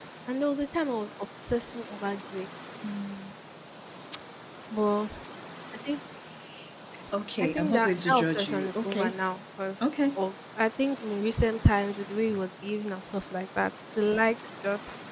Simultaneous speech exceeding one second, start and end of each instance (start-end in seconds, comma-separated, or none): 7.4-9.1